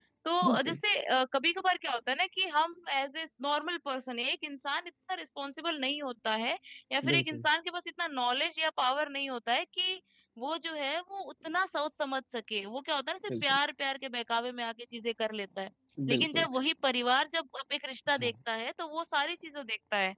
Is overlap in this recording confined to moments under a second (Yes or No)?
Yes